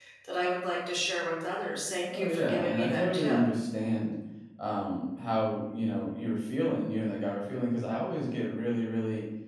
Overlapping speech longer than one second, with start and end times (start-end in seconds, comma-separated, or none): 2.1-3.4